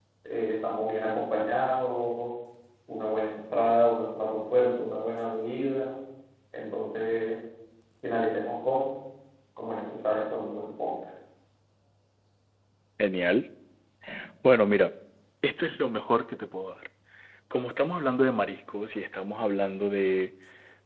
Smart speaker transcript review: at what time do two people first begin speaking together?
none

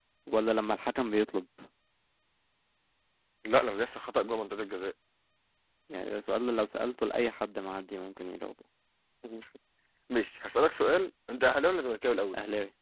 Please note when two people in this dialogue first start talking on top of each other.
none

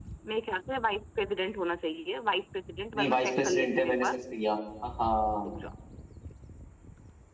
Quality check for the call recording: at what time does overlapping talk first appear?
2.9 s

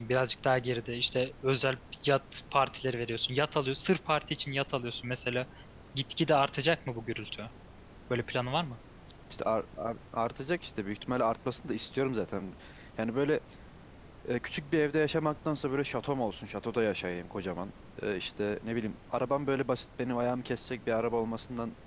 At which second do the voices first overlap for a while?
none

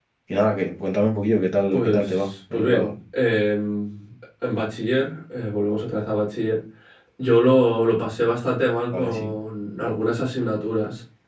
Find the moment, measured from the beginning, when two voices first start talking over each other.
1.7 s

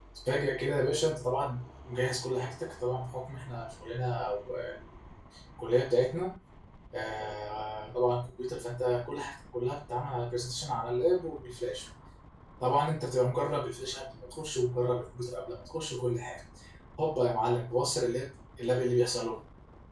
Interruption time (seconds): none

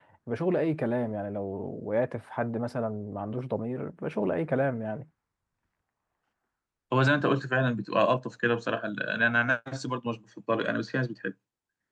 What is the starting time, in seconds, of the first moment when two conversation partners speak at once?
none

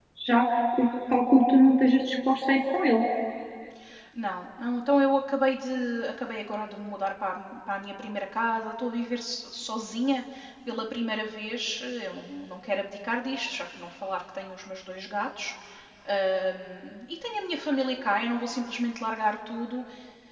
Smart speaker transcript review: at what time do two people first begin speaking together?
none

